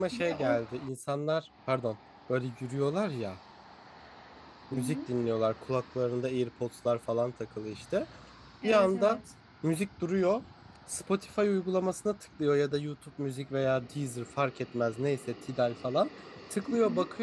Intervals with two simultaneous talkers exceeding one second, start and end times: none

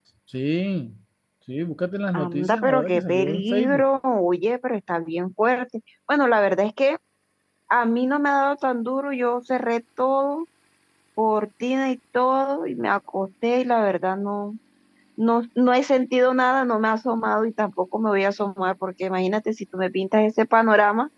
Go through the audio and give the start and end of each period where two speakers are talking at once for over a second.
2.1-3.8

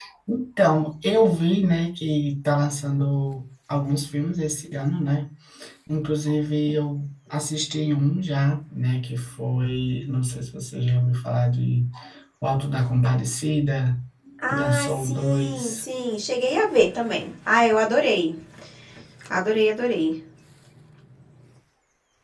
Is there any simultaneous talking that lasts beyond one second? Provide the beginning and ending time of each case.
14.5-15.8

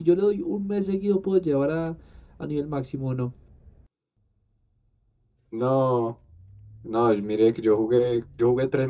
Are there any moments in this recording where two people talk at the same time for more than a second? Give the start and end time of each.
none

